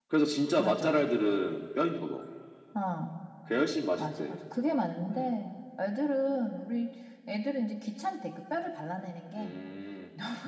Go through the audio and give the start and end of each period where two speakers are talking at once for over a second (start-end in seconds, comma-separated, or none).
none